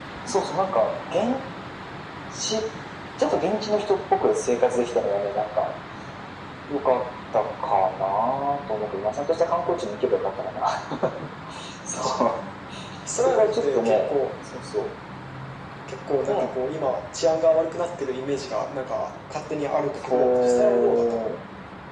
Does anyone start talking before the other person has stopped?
Yes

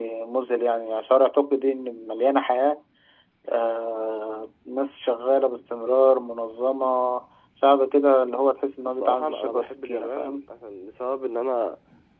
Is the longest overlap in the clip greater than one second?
Yes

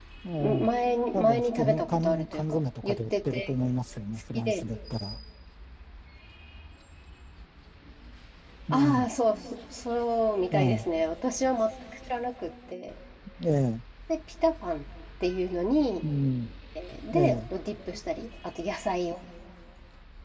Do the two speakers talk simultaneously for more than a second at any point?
Yes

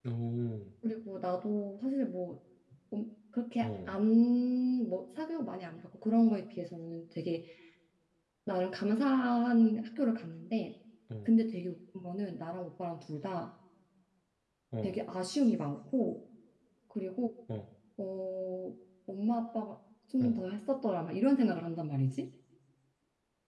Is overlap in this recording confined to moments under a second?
Yes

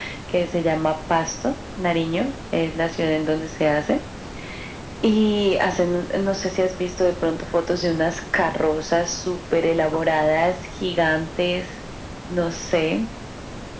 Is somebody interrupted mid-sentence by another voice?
No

